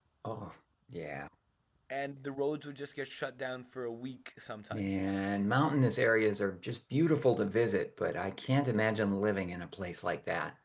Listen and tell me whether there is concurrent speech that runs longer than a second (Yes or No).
No